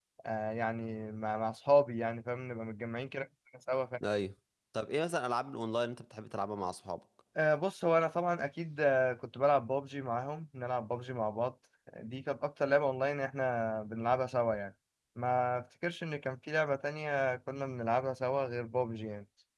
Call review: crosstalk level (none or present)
none